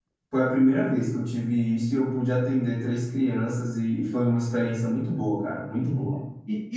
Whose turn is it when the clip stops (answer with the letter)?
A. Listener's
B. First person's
A